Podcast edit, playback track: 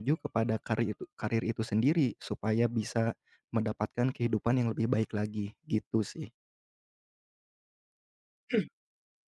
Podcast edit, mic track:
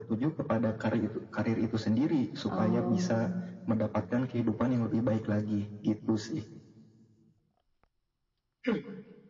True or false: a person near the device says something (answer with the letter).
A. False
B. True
B